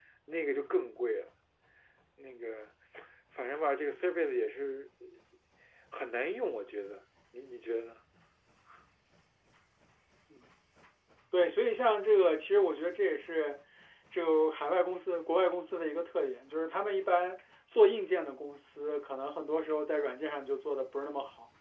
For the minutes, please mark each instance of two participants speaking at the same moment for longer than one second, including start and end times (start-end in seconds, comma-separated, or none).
none